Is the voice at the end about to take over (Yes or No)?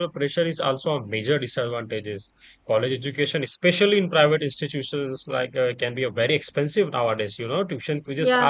No